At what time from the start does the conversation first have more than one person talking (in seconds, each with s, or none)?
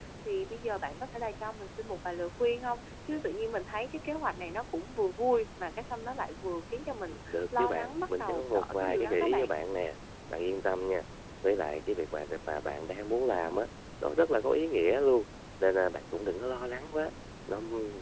7.1 s